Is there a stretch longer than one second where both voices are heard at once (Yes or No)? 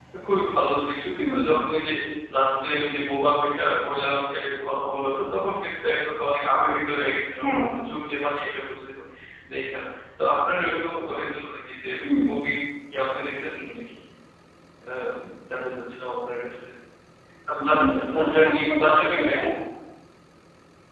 Yes